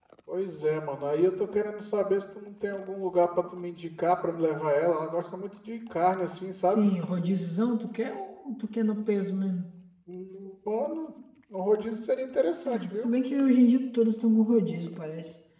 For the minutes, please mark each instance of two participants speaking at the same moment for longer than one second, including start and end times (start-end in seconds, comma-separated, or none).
none